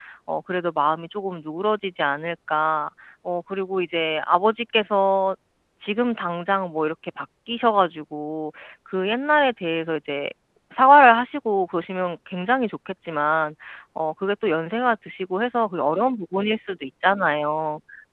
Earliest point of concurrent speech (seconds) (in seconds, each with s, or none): none